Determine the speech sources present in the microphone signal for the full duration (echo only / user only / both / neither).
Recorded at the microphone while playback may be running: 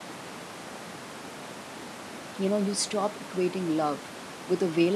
user only